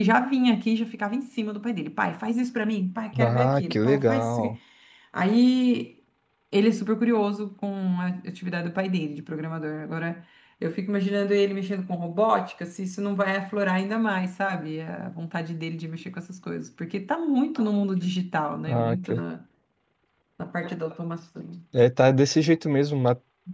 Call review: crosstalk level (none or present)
present